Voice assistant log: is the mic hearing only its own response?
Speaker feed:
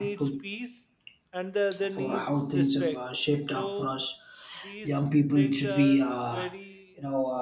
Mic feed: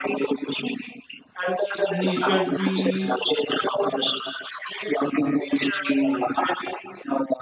No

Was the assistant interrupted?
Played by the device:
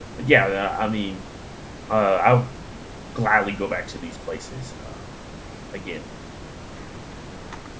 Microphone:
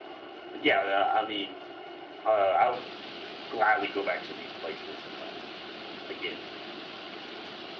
No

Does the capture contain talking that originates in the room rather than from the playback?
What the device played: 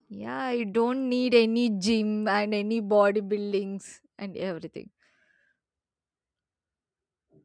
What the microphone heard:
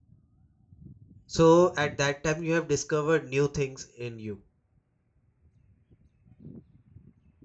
Yes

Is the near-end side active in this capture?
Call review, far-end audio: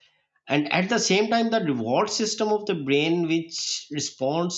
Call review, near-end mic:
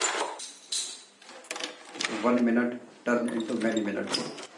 Yes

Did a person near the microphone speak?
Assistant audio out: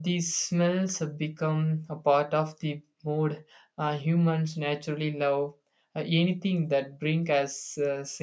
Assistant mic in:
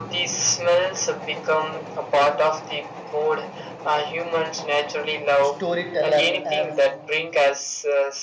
Yes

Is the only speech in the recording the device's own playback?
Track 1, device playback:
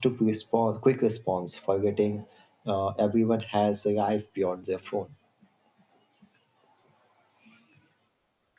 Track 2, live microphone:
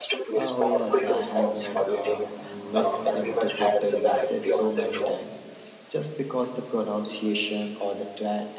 No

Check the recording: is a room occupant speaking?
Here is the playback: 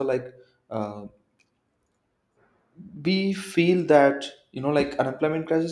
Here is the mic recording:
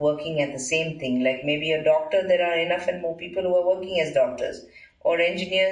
Yes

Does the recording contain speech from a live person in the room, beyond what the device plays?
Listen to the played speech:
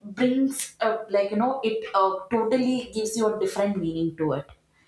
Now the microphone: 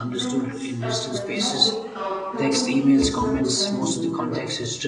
Yes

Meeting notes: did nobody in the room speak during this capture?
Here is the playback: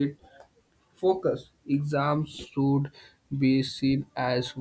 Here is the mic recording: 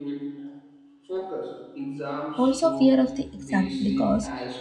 No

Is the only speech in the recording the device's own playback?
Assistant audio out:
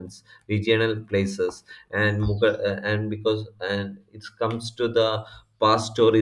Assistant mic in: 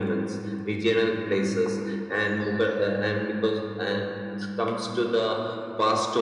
Yes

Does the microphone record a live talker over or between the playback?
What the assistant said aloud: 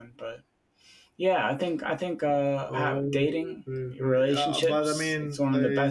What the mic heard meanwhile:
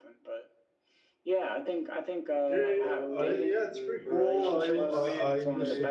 Yes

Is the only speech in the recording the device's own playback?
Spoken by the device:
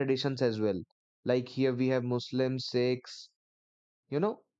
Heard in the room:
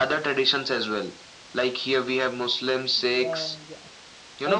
No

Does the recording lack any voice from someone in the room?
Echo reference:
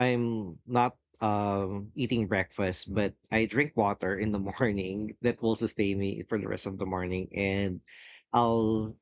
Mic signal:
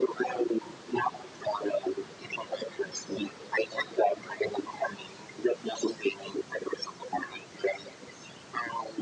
Yes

